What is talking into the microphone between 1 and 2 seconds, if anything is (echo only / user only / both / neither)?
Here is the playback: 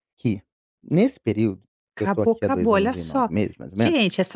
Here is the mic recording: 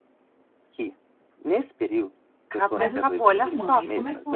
echo only